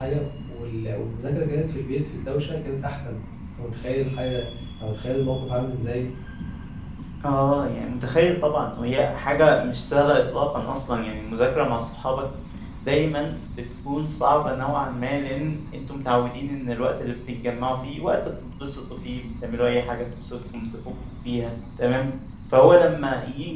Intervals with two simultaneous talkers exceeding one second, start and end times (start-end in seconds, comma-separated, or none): none